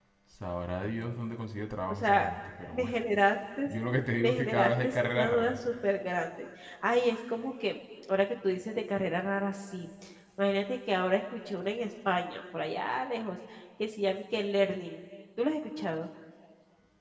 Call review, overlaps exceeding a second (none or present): present